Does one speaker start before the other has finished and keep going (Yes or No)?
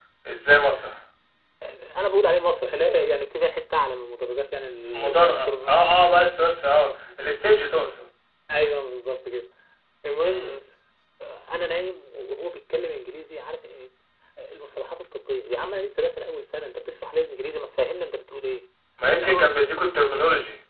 Yes